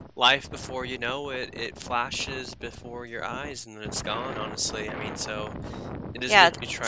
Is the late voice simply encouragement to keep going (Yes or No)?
No